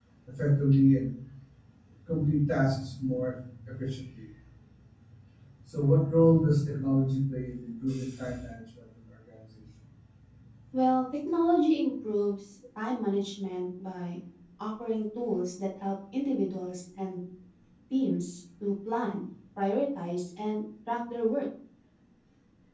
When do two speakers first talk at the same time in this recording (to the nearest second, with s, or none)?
none